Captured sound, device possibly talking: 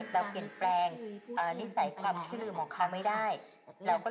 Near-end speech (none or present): present